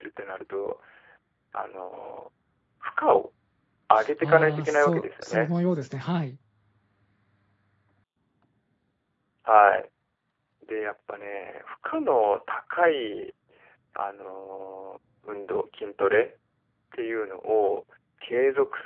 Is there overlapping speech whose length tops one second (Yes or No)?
Yes